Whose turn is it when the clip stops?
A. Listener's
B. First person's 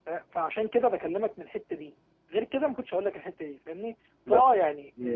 B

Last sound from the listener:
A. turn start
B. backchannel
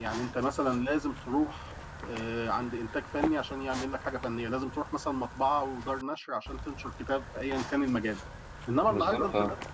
B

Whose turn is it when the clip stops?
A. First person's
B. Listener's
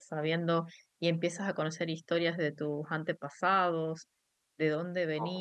A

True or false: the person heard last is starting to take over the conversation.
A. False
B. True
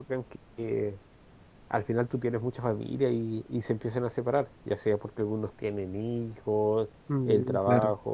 A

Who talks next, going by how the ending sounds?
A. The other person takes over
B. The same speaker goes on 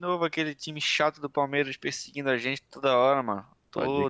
B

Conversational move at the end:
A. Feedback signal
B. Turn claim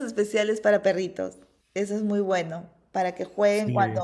A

